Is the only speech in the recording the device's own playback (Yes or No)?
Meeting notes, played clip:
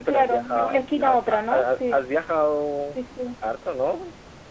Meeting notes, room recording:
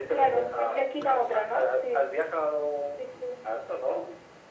Yes